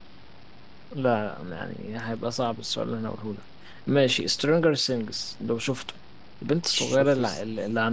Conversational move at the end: listening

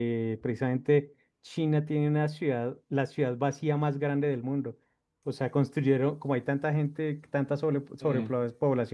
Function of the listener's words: listening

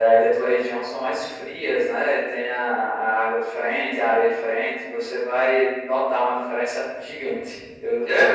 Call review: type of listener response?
taking over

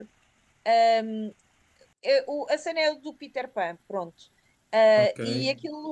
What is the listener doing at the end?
listening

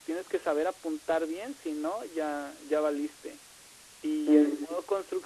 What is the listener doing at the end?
listening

